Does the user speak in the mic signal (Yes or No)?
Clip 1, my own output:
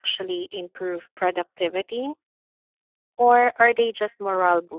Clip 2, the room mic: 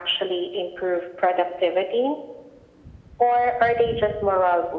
No